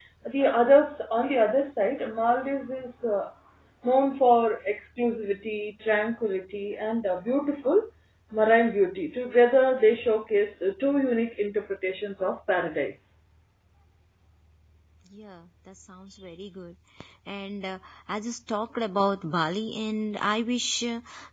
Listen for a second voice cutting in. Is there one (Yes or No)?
No